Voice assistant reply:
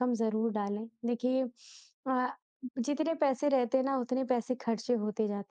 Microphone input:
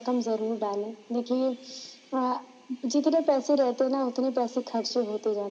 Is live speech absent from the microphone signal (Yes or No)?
Yes